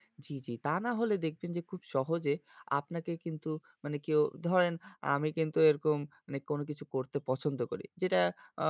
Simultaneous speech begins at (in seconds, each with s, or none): none